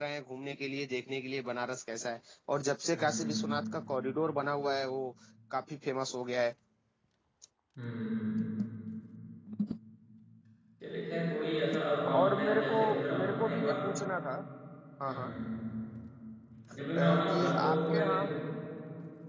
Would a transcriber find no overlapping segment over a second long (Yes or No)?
No